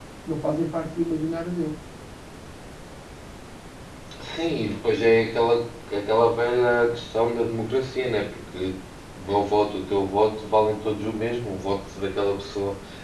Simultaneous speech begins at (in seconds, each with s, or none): none